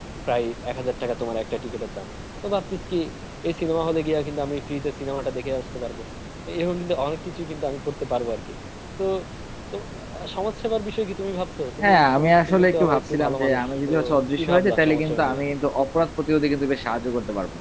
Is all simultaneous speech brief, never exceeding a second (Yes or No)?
No